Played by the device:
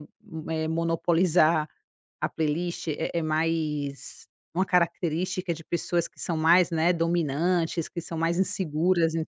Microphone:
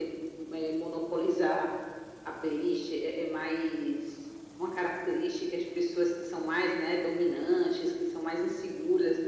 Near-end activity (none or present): none